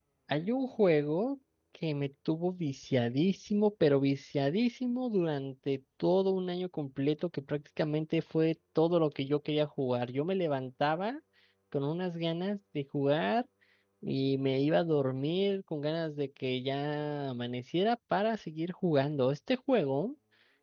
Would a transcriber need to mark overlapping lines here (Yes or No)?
No